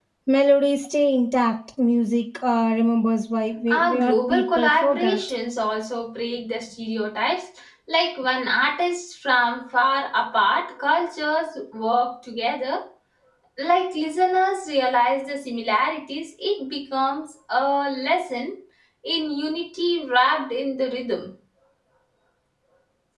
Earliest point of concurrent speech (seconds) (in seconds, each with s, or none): 3.7 s